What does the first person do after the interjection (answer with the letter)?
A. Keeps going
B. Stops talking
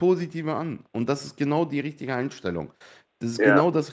A